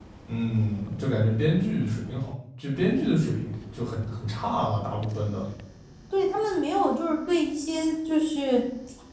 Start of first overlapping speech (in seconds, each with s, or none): none